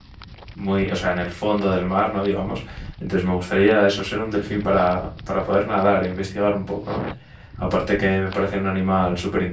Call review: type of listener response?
listening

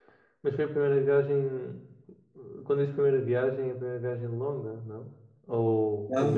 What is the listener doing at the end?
taking over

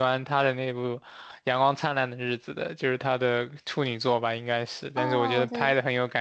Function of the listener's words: taking over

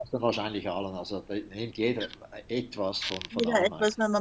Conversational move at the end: taking over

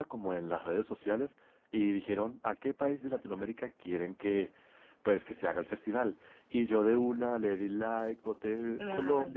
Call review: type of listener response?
listening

